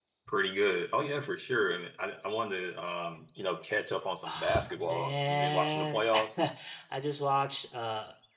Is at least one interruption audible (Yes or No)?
Yes